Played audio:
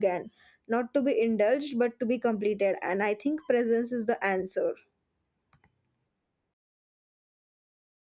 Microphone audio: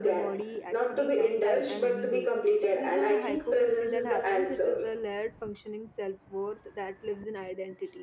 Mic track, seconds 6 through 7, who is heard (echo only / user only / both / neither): user only